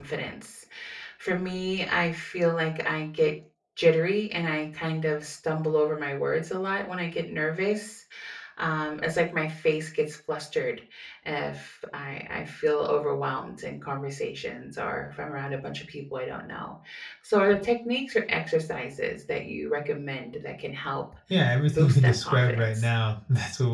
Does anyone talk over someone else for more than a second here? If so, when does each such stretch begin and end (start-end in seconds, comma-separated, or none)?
21.7-22.9